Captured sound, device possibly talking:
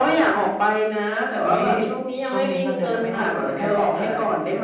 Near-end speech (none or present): none